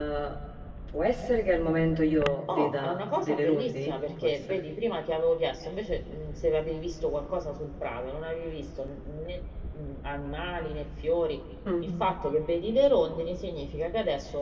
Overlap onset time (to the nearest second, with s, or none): 2 s